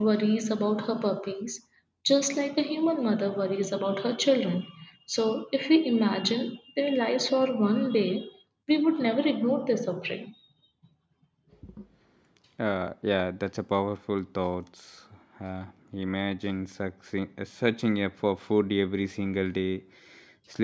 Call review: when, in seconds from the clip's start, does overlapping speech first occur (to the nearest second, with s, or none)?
none